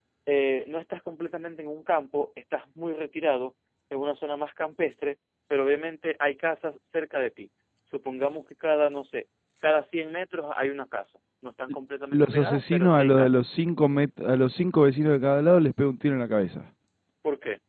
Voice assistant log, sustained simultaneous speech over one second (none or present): present